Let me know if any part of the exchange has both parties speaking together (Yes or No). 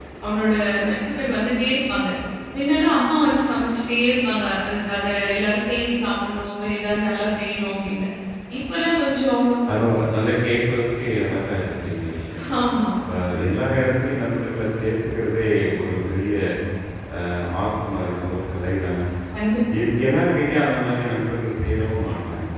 No